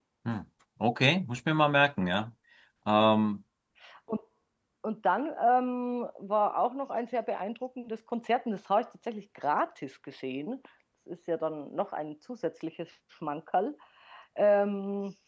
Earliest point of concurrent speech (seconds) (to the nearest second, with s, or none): none